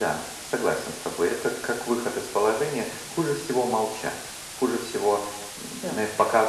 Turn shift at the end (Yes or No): No